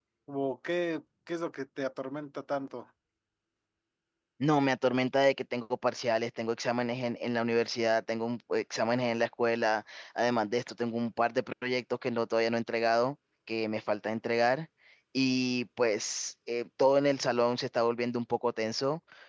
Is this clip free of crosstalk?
Yes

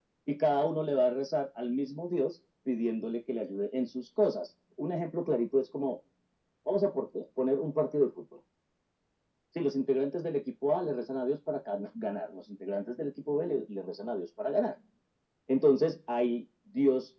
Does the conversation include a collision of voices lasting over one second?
No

